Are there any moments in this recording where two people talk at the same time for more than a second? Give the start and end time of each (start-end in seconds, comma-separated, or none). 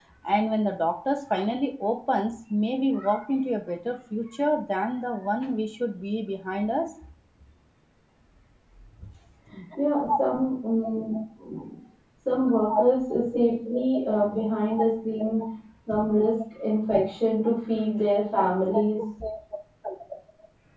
none